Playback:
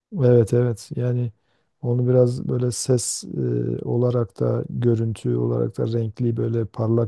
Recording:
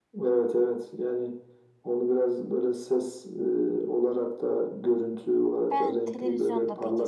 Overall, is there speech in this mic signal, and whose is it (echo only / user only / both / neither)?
both